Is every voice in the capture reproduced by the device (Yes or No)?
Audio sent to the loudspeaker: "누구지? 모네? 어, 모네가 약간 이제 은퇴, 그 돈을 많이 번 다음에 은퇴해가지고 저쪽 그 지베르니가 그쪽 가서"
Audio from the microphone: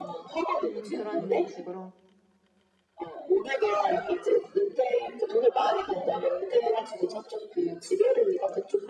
No